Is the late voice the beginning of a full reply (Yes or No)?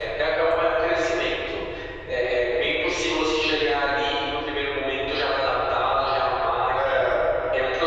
No